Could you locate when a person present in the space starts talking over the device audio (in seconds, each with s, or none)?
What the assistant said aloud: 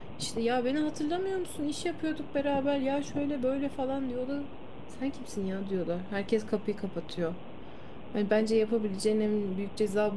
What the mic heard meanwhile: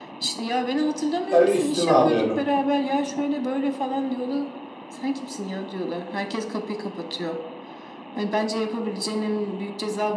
1.3 s